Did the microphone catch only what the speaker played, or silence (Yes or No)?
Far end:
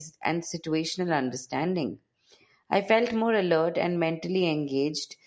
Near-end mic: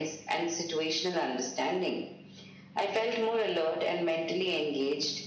Yes